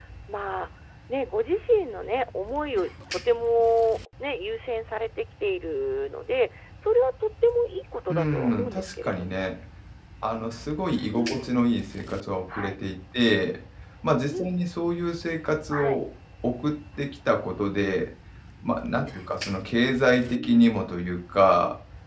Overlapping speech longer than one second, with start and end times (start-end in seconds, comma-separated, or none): 8.1-9.4